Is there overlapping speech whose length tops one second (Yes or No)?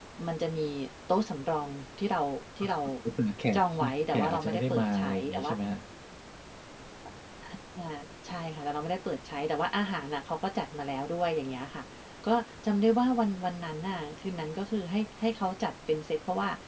Yes